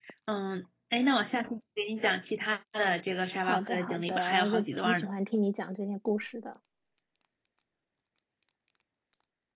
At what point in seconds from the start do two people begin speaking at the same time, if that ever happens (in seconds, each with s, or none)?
3.4 s